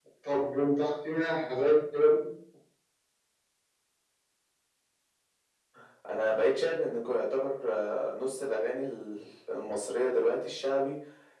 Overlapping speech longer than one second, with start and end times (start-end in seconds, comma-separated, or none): none